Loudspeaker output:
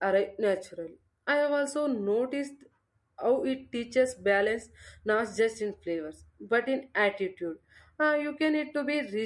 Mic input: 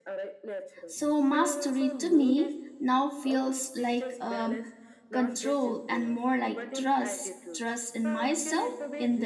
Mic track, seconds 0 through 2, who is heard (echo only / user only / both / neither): both